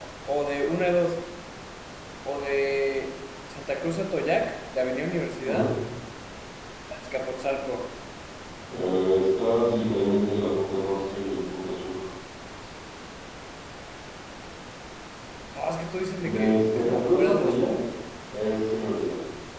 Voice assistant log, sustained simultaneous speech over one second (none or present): present